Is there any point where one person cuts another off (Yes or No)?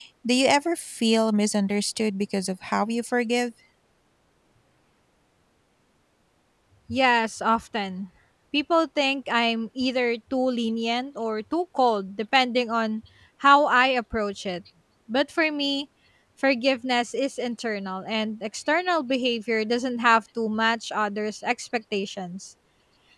No